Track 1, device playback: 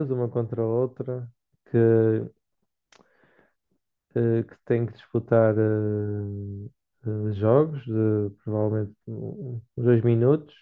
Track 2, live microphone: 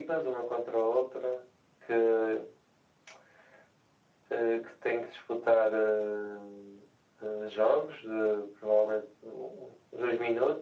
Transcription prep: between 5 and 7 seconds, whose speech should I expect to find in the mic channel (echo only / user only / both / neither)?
echo only